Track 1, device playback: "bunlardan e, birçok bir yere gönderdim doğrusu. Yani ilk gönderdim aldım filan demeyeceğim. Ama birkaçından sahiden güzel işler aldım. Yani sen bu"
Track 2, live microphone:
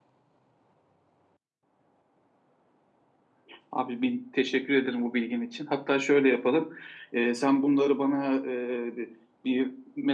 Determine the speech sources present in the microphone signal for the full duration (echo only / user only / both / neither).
user only